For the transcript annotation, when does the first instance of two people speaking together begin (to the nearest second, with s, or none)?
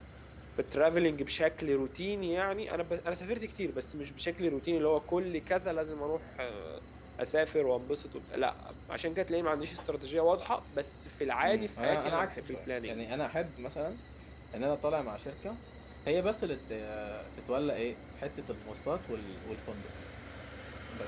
11 s